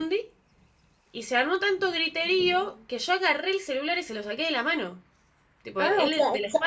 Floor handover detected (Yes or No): Yes